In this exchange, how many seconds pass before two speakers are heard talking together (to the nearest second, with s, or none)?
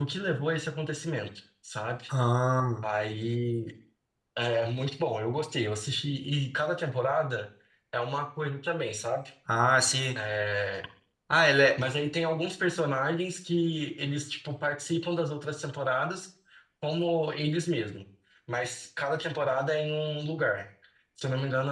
none